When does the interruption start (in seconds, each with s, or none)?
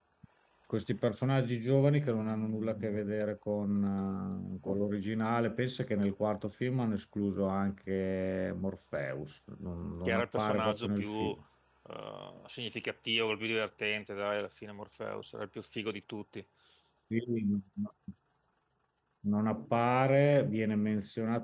10.0 s